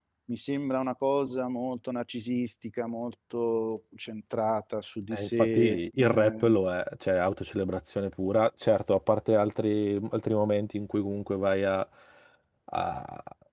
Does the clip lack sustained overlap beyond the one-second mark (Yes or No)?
No